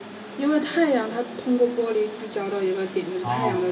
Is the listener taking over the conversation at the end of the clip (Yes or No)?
No